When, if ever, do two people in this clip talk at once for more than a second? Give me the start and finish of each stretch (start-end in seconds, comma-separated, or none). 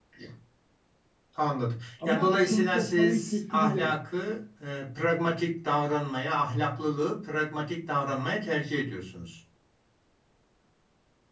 2.0-4.0